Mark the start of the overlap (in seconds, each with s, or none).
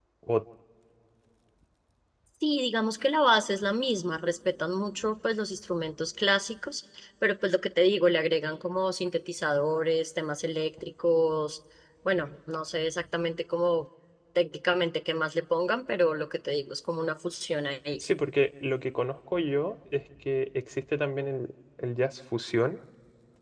none